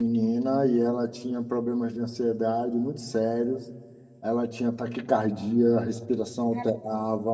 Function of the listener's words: listening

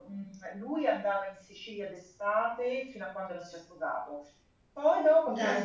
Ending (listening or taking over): listening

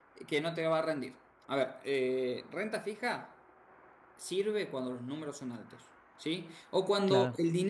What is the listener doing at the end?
listening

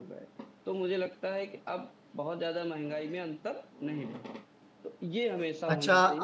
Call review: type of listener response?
taking over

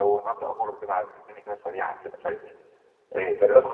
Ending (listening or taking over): taking over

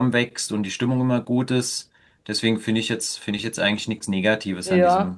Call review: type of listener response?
taking over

